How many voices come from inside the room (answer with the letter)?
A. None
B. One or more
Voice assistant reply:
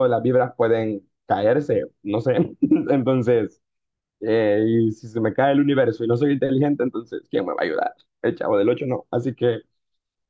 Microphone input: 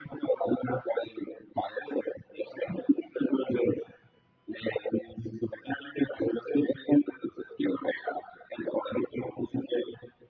A